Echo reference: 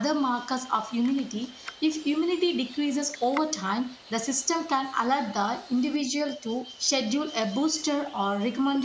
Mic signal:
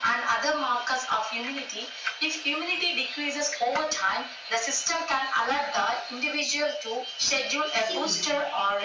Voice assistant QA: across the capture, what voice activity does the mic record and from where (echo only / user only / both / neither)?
both